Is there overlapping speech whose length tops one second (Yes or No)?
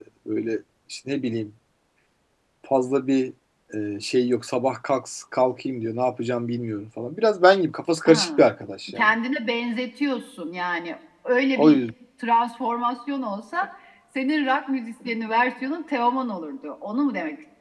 No